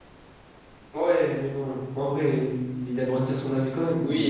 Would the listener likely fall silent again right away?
No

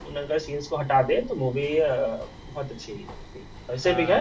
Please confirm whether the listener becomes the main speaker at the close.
No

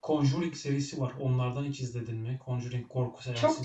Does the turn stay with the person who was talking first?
No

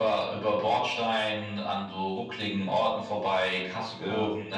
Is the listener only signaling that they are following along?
Yes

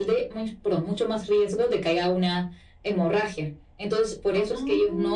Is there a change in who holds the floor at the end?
No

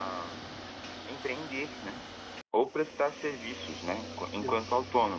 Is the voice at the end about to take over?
No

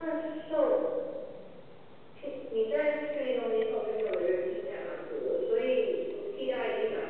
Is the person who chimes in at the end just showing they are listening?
Yes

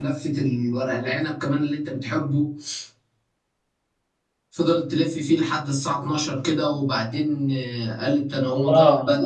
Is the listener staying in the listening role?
No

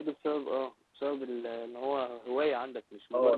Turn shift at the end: Yes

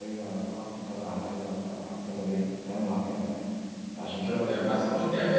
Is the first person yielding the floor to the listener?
Yes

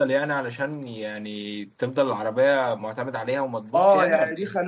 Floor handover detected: Yes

